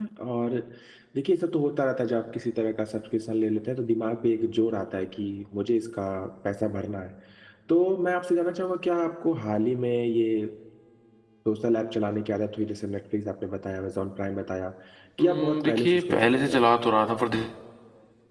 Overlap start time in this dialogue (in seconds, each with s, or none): 15.2 s